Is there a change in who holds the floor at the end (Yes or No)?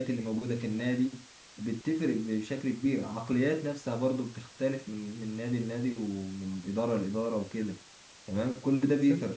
No